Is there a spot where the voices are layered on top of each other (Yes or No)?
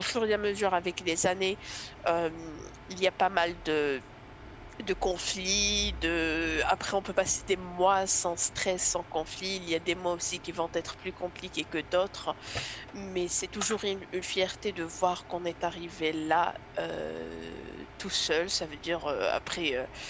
No